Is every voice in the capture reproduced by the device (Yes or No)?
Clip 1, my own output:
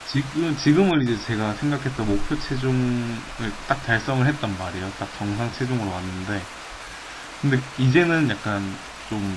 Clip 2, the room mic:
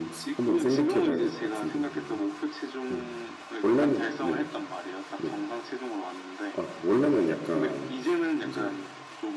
No